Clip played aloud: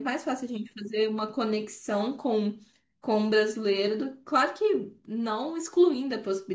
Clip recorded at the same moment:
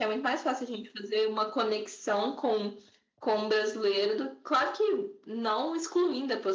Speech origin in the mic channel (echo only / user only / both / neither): echo only